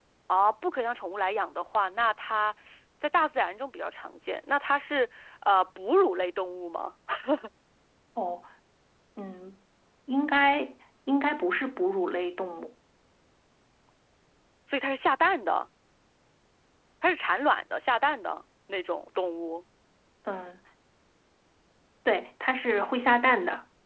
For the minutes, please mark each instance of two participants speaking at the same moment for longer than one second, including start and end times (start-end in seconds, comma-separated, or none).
none